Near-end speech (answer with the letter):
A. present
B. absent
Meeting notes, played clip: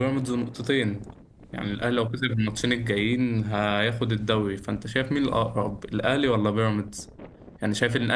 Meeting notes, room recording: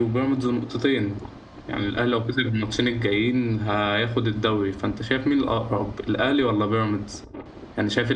B